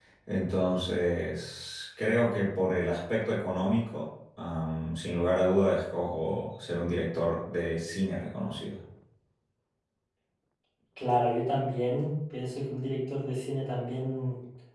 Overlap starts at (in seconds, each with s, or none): none